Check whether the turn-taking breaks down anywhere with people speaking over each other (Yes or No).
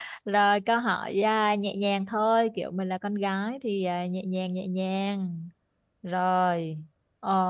No